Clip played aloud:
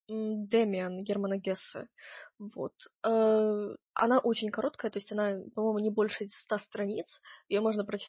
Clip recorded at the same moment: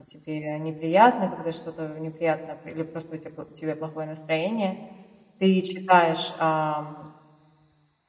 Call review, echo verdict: none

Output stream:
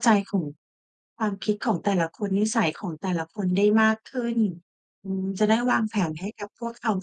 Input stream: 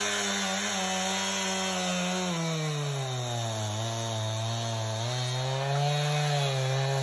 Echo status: none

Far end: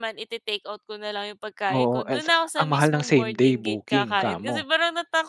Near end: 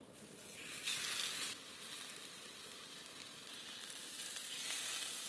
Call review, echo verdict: none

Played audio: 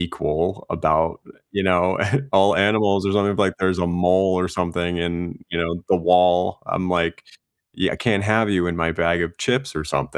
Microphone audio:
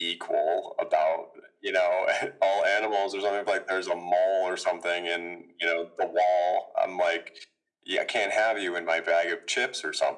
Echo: present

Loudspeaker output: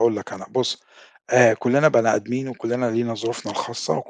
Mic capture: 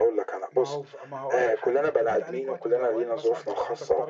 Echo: present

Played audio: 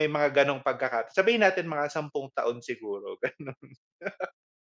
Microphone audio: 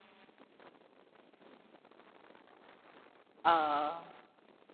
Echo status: none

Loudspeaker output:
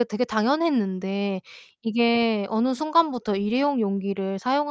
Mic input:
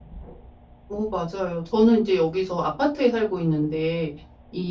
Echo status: none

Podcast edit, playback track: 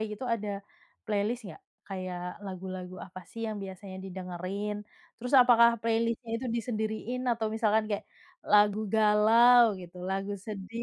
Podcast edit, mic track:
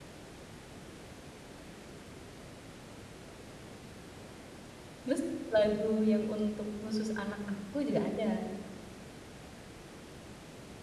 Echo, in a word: none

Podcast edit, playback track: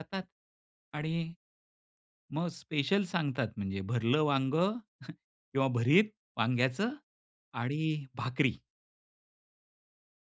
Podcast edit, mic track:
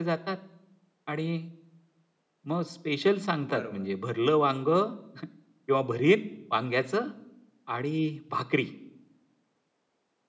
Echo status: present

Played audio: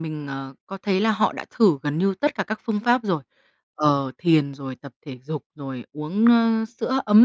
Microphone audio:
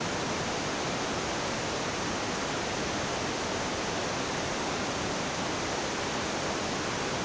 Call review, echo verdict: none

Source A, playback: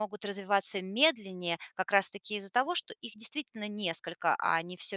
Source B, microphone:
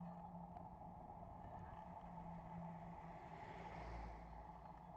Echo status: none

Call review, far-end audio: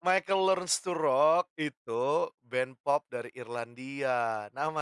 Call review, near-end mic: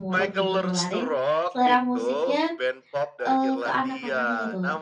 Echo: present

